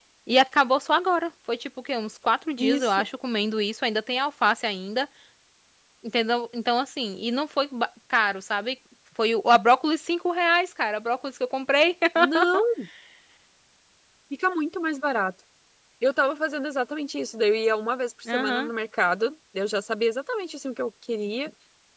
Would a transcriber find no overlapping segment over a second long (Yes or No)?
Yes